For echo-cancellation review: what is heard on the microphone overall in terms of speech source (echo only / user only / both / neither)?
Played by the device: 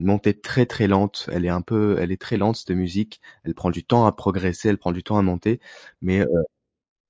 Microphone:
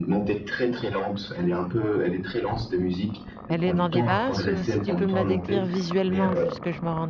both